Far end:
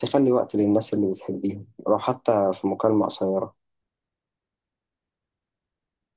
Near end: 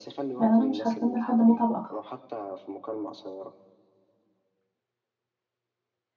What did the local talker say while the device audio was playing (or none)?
يعني انا مش هستنى لحد ما اتعب اكتر